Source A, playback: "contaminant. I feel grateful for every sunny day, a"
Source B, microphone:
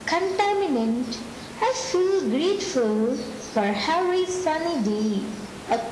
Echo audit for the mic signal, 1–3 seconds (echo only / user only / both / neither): echo only